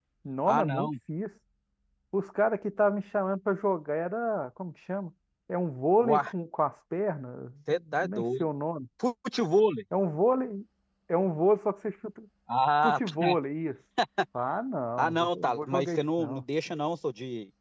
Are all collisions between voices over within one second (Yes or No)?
No